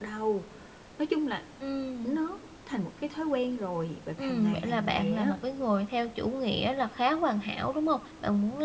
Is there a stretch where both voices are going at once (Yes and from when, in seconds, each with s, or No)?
Yes, from 4.2 s